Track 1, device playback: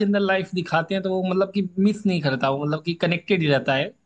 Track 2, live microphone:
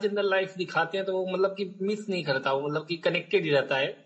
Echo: present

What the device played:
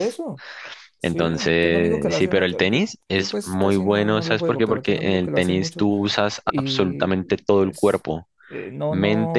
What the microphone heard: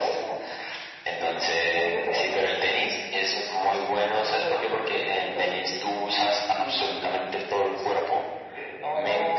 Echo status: present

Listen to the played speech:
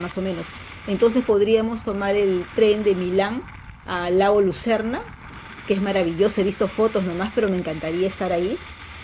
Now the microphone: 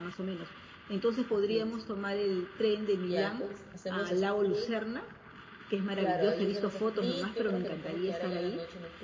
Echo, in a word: present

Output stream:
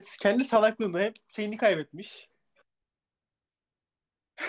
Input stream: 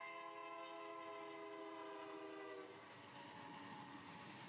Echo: none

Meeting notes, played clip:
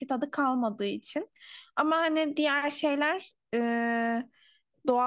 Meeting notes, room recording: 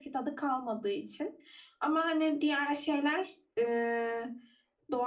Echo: present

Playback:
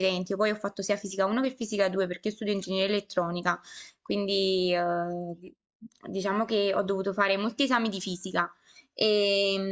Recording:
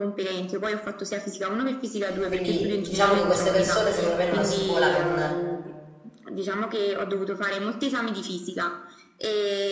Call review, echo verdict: present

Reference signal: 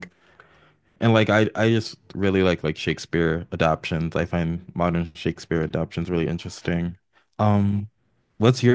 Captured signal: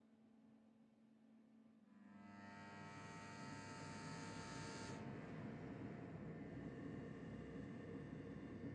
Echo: none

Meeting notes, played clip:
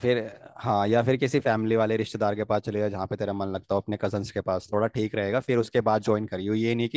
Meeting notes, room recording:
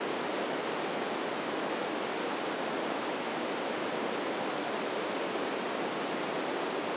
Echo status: none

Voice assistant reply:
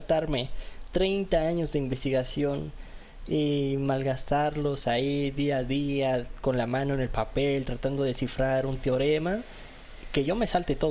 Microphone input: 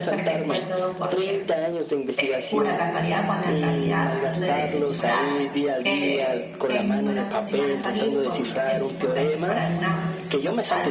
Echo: present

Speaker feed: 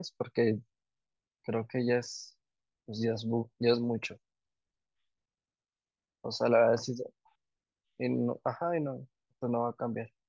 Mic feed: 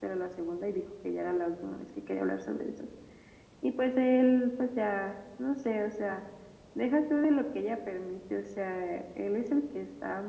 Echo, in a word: none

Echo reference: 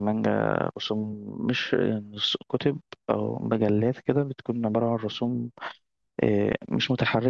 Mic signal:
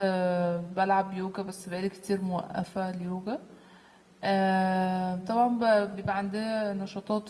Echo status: none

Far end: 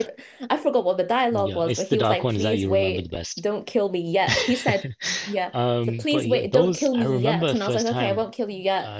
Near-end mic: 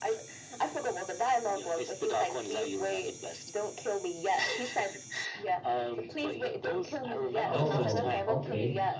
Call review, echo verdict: present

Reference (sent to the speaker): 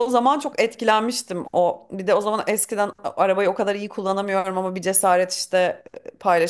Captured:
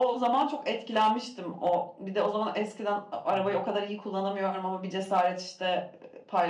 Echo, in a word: present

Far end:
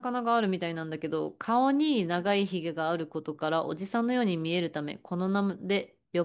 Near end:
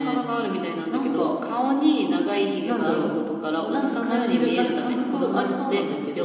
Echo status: present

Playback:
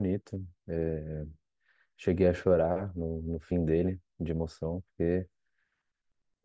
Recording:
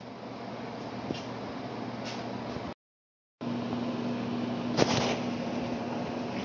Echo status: none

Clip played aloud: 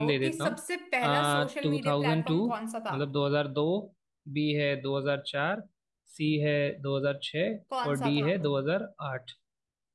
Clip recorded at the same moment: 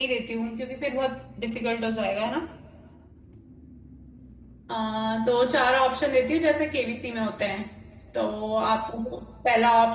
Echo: none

